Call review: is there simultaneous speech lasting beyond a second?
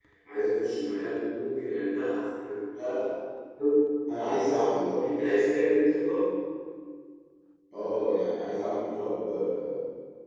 No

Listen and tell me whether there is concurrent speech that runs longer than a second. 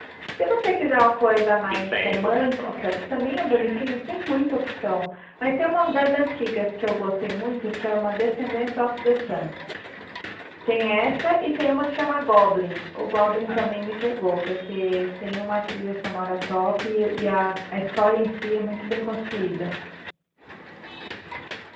Yes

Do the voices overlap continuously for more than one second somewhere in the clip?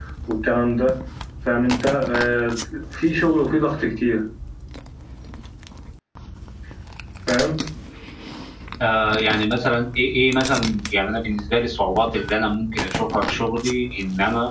No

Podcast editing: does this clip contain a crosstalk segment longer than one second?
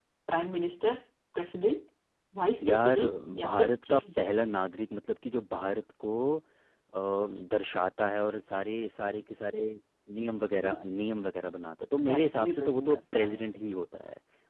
Yes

